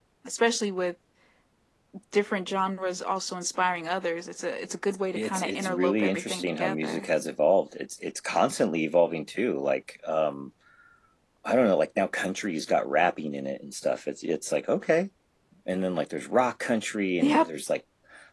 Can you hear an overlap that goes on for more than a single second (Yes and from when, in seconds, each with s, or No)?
Yes, from 5.2 s